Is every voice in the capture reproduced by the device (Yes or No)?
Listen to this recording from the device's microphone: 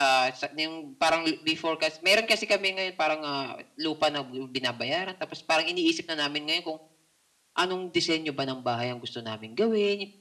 Yes